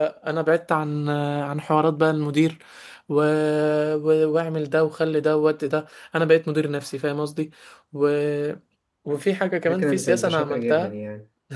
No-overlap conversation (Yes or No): No